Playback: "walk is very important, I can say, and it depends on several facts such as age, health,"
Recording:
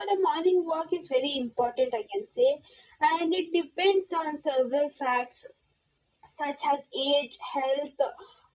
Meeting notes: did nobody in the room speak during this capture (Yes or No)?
Yes